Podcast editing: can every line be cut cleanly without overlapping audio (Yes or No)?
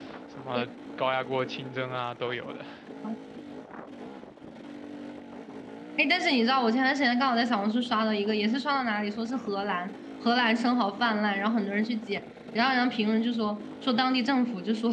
Yes